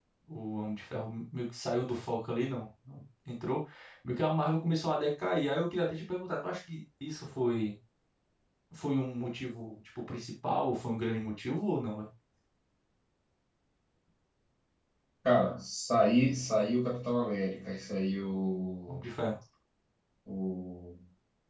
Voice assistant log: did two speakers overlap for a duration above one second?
No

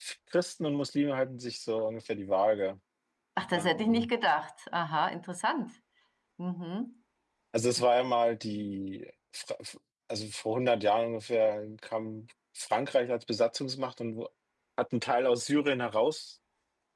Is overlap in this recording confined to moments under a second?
Yes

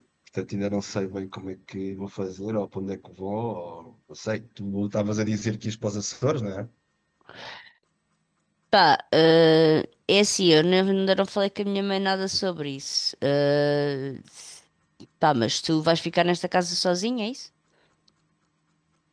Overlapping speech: No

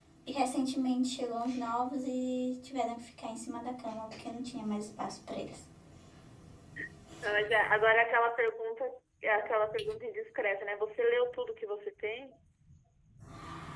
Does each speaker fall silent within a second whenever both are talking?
Yes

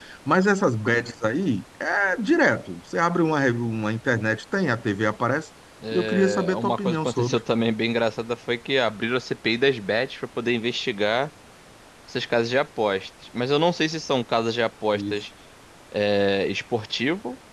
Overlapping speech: Yes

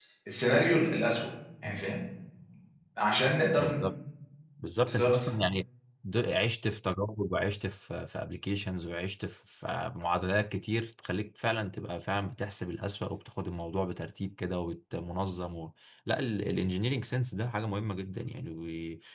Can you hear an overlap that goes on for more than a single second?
No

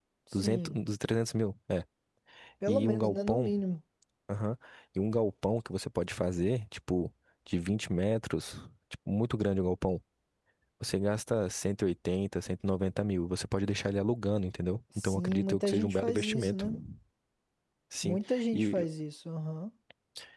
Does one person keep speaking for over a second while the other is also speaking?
Yes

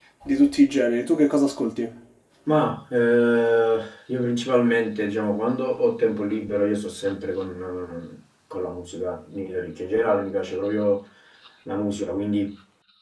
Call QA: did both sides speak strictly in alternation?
Yes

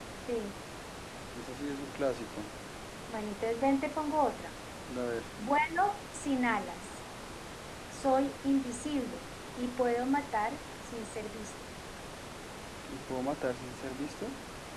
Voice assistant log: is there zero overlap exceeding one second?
Yes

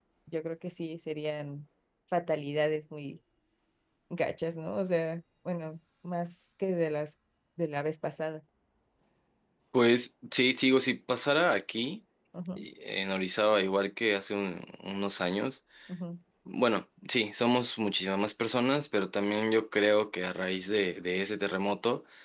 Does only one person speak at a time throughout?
Yes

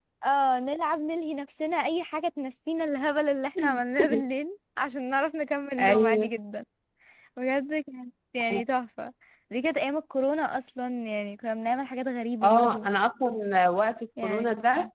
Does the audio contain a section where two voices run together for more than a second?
No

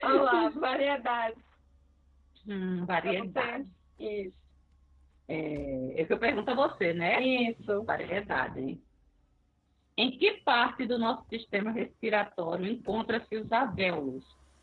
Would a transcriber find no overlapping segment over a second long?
Yes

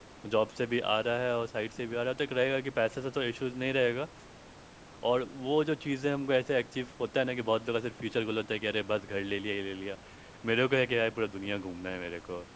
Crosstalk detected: No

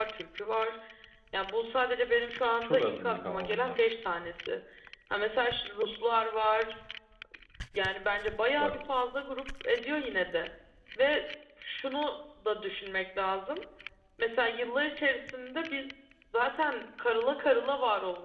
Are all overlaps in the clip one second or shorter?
No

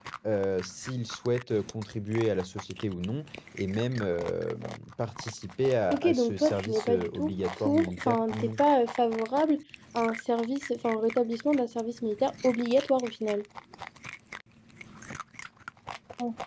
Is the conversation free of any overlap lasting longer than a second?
No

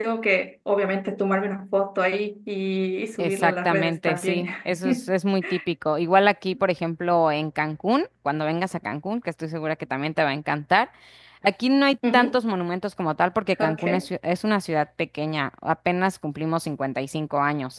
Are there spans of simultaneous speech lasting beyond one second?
Yes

